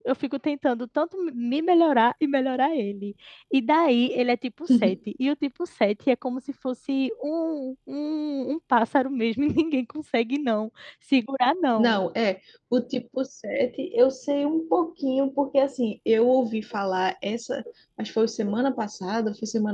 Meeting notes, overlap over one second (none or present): none